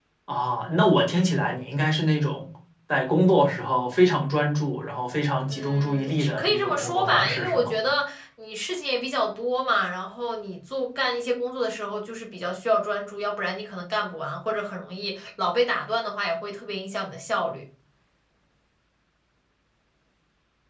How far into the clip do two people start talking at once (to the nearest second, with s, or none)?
5 s